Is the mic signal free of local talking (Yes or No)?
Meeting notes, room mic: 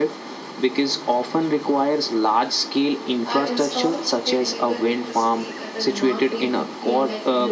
No